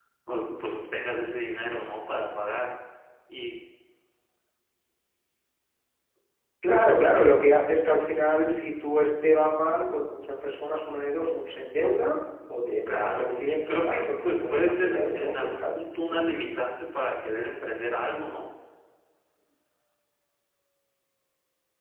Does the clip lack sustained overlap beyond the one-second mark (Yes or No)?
No